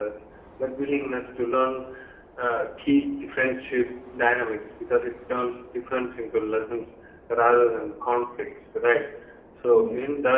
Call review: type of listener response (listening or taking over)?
listening